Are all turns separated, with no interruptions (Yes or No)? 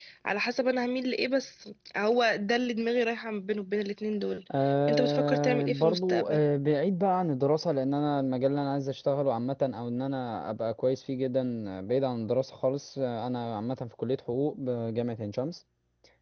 No